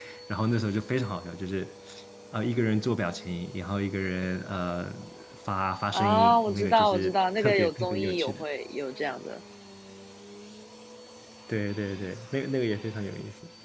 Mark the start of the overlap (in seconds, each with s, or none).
5.9 s